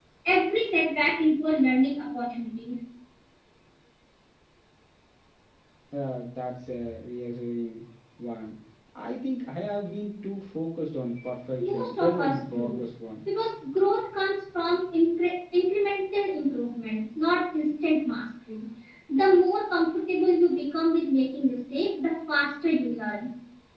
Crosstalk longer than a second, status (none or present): present